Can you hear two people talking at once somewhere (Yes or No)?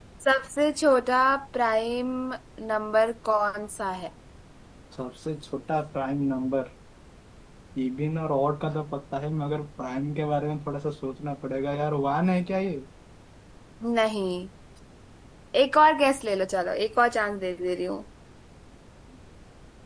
No